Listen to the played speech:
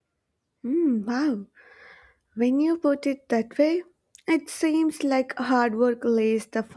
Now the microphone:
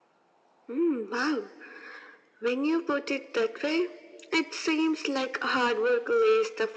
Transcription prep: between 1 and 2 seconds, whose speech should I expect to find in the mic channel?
echo only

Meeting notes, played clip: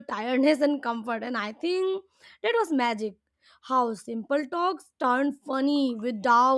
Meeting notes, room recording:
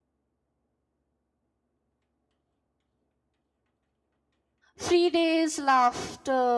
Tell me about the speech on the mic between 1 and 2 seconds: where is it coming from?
neither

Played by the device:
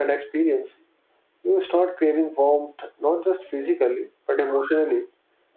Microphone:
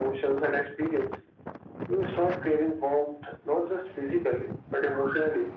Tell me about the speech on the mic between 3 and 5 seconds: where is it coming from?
echo only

